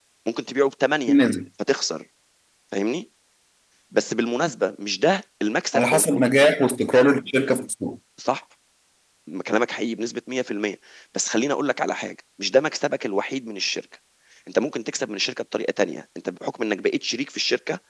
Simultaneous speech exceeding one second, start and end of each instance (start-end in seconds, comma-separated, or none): none